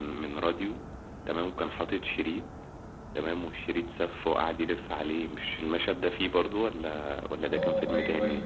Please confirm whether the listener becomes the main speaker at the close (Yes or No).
Yes